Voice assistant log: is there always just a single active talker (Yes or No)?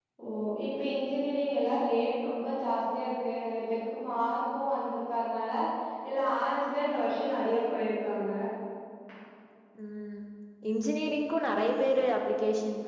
Yes